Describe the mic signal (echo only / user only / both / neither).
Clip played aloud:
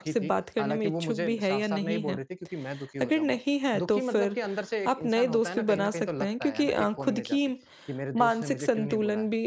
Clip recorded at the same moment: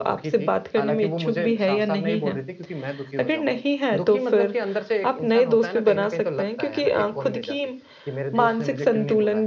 echo only